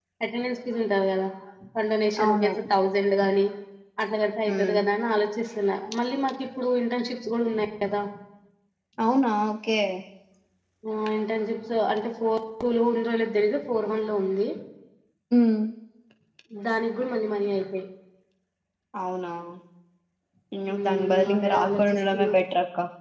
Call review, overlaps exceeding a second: present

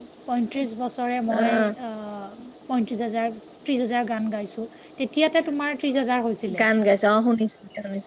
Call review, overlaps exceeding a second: none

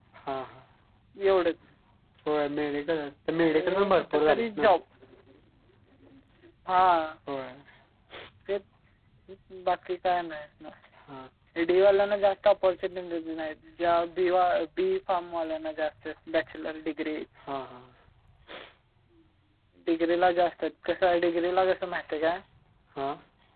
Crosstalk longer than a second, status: present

